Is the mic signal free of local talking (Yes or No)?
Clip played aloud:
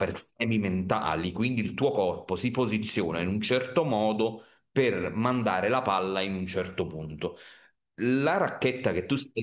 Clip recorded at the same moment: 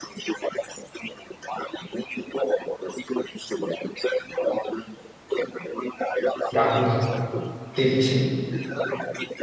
No